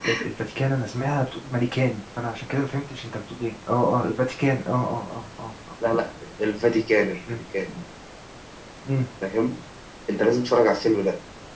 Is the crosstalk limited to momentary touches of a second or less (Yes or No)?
Yes